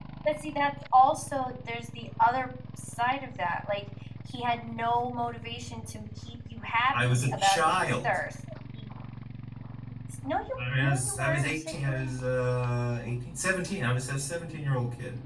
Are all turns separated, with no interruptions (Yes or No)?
No